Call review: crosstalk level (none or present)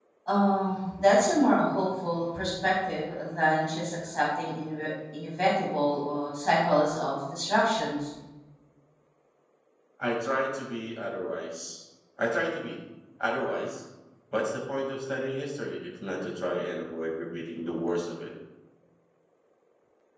none